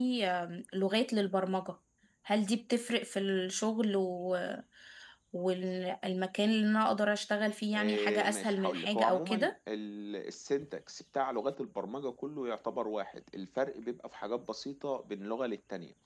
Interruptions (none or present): present